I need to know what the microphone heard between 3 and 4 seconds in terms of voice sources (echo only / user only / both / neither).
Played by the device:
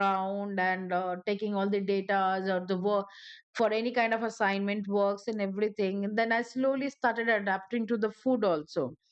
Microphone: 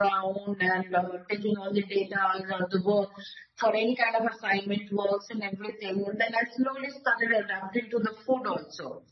echo only